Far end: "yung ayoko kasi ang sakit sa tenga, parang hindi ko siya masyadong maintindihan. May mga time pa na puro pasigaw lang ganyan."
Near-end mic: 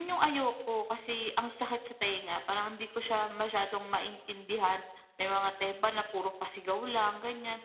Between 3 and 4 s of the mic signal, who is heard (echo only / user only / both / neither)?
echo only